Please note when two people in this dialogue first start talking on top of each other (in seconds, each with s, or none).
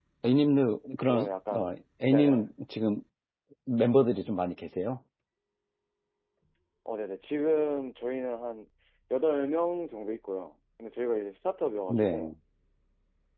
1.1 s